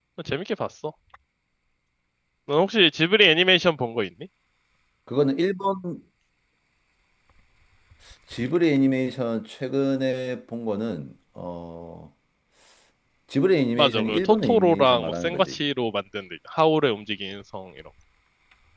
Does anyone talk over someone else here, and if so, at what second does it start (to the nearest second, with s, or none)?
14 s